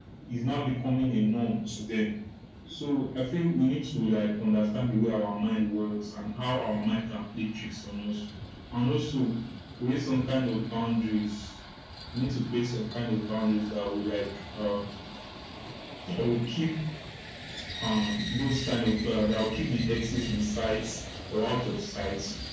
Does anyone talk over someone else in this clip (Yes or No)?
No